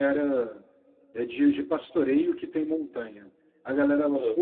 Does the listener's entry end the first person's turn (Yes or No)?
No